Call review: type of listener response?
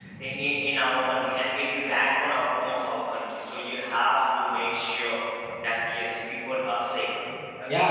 taking over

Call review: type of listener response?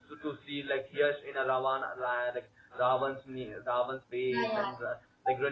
listening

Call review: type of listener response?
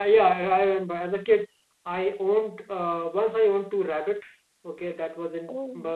listening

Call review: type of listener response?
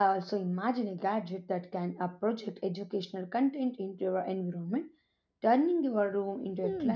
taking over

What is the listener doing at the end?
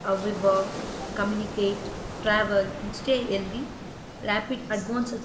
listening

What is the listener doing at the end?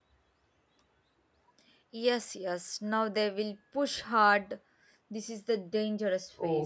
taking over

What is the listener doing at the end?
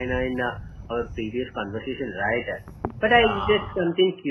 listening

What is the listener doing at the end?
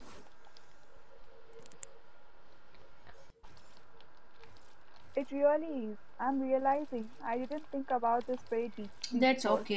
taking over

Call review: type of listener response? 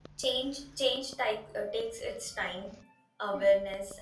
listening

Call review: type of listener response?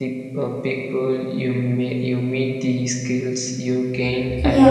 listening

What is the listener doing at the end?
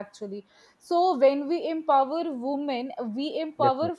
listening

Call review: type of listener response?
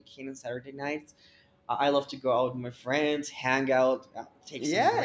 taking over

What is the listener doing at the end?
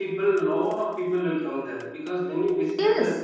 listening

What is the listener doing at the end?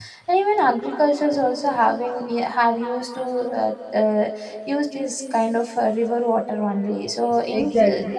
listening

